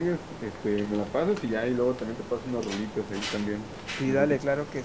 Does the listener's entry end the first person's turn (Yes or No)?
Yes